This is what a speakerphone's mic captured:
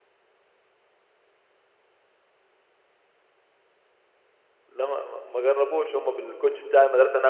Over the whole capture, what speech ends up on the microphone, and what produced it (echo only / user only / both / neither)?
user only